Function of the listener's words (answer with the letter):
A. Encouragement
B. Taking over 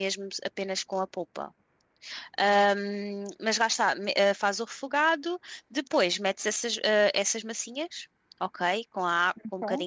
A